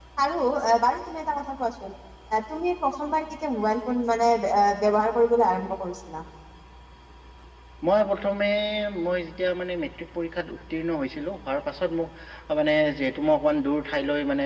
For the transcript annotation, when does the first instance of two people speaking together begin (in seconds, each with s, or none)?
none